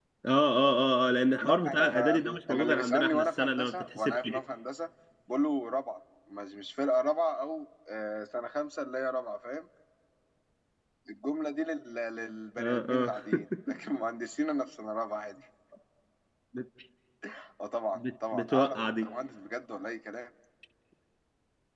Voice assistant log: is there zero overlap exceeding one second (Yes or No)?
No